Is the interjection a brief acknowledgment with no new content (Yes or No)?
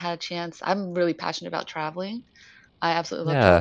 Yes